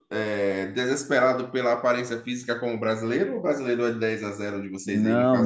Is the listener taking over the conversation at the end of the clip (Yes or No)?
Yes